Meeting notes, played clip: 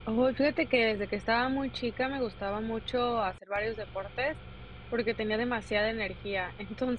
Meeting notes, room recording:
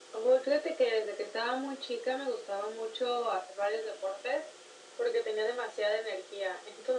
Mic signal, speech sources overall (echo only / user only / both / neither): echo only